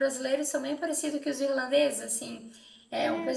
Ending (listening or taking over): listening